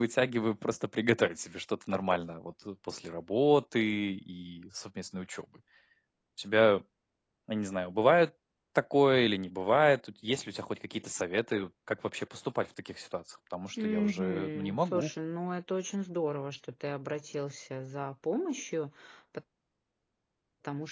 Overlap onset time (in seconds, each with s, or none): 13.8 s